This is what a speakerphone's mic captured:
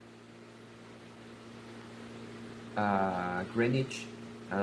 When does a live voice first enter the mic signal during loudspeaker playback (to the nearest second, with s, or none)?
3 s